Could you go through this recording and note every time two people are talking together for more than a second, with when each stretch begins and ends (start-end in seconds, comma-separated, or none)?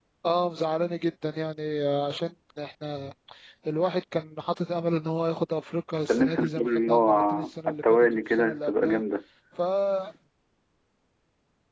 6.1-9.0